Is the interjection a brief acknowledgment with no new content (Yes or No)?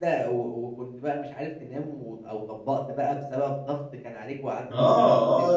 No